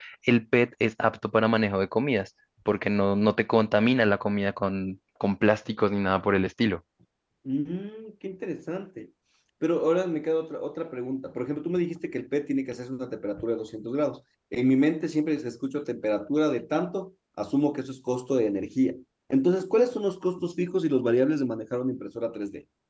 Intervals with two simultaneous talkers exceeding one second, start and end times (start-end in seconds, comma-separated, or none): none